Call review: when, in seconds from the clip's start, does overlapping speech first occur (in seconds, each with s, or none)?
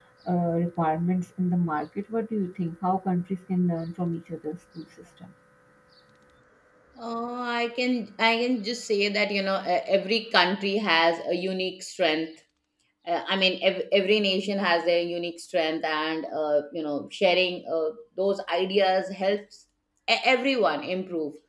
none